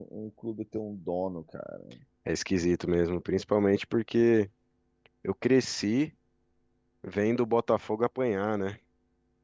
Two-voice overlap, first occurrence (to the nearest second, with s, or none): none